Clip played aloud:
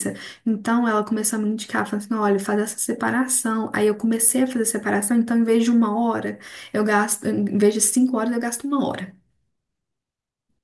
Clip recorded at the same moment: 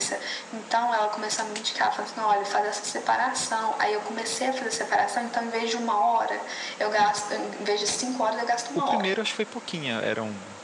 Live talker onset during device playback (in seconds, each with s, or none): 8.7 s